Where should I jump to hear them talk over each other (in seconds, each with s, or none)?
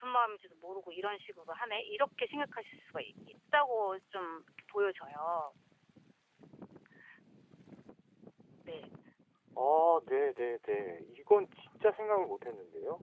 none